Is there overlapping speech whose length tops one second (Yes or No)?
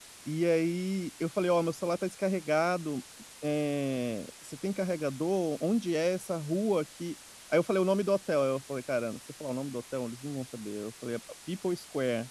No